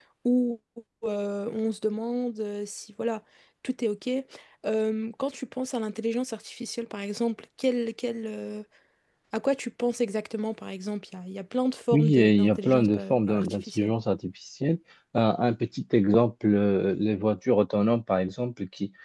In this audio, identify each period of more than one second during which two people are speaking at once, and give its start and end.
11.9-13.9

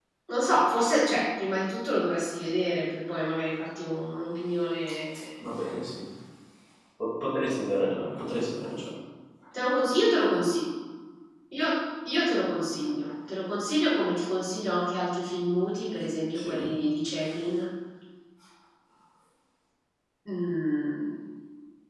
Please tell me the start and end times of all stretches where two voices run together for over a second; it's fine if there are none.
none

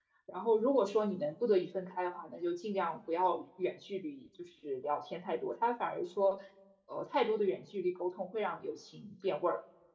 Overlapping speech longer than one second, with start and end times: none

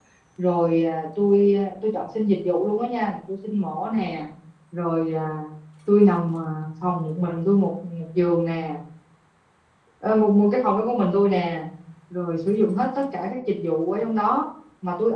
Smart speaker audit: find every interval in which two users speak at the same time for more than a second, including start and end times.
none

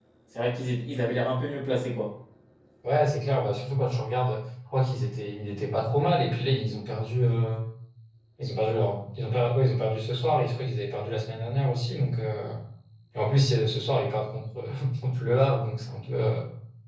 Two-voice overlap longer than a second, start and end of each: none

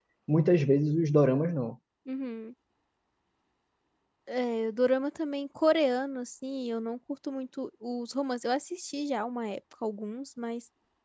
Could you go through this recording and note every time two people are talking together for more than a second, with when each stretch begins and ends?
none

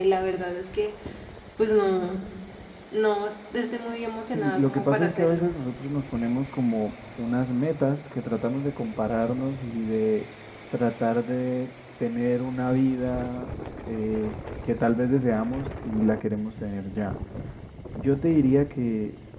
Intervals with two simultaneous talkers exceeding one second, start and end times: 4.3-5.5

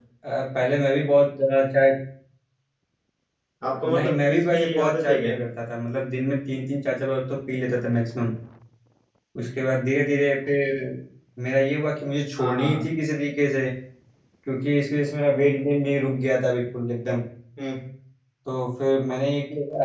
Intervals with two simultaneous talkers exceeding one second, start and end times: 3.8-5.3

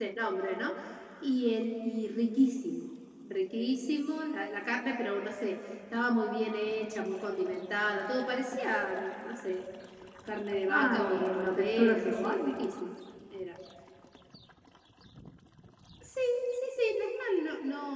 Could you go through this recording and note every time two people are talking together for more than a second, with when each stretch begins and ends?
10.7-12.5

